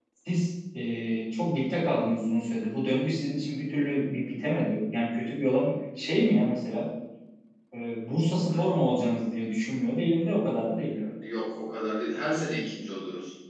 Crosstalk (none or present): none